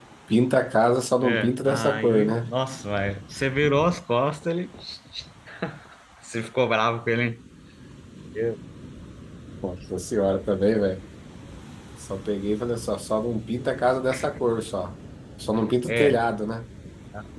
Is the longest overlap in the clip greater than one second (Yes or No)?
Yes